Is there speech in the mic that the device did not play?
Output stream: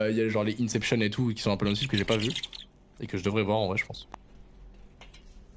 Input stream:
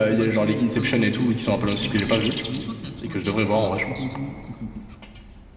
Yes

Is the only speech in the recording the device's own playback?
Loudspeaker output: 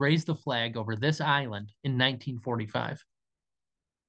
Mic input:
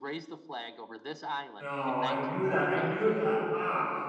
No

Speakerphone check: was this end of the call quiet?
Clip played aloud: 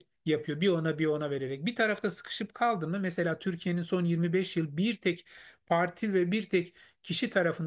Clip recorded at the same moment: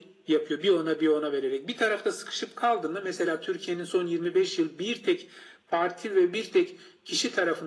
Yes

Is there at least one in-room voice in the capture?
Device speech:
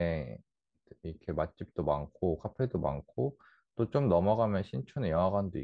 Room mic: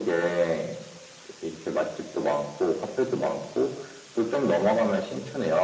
No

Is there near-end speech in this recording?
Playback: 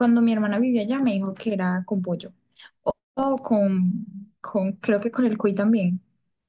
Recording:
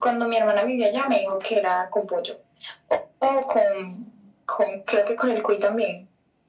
No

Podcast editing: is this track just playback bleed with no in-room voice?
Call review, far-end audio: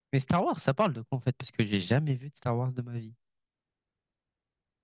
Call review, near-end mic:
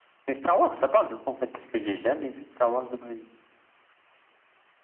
Yes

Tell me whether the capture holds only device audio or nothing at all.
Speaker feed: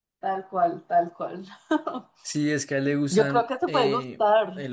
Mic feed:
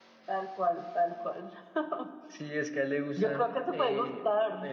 Yes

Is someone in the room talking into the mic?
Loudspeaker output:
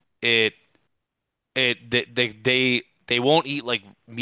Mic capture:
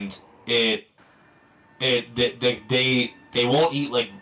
No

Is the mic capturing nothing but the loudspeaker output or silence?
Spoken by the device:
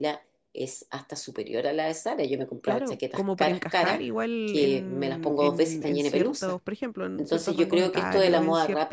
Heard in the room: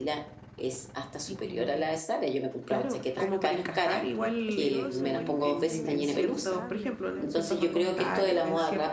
No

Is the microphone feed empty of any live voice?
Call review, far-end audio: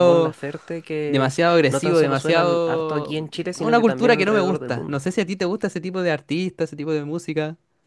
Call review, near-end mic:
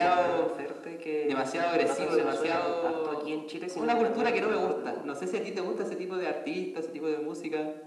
Yes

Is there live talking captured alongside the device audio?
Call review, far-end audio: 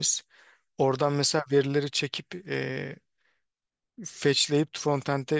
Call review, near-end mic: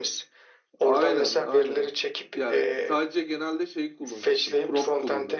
Yes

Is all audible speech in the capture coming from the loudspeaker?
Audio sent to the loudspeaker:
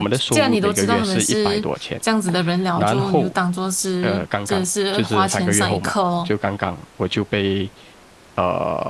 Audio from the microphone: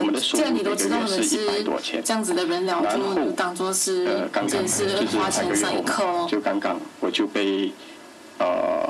No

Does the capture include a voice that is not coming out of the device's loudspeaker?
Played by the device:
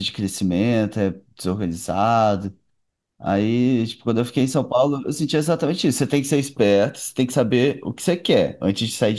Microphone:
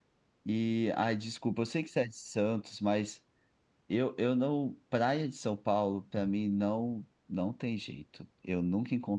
Yes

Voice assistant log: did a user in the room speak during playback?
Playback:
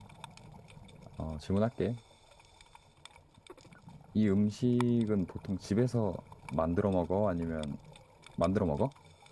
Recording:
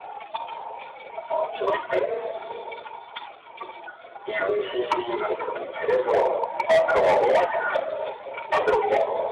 No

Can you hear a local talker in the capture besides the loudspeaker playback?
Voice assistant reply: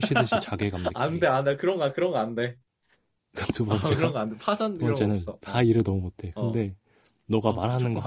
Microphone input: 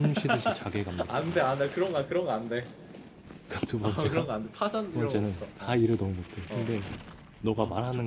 No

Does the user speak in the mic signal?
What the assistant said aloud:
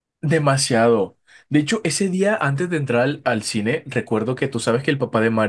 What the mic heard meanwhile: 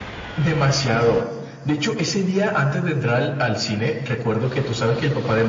No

